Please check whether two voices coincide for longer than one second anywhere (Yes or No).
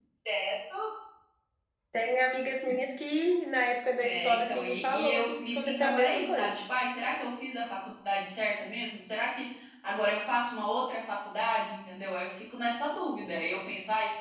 Yes